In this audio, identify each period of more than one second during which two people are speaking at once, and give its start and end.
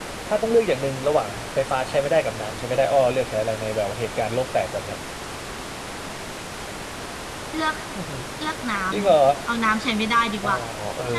none

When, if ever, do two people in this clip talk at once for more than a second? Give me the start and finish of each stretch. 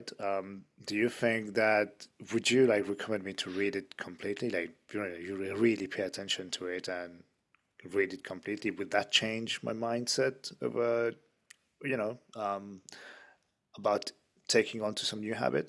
none

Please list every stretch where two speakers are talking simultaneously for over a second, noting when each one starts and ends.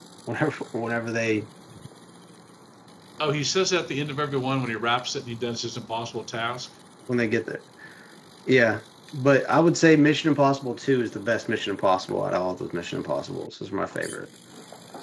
none

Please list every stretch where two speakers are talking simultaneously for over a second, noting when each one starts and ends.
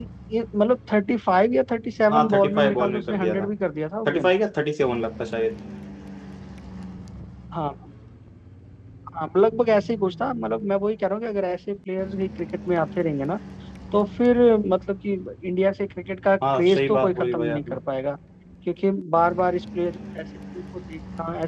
2.1-3.5, 16.5-17.8

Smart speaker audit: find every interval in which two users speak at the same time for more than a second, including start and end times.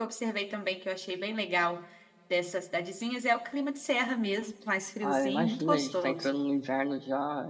5.0-6.3

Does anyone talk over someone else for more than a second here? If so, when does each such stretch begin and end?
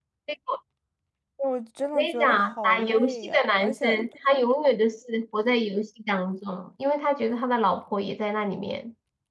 1.9-3.9

